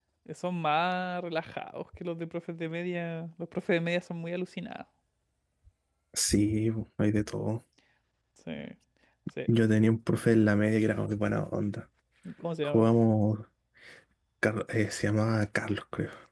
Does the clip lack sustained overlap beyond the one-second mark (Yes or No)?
Yes